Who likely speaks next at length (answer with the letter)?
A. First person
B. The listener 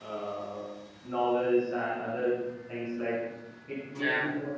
A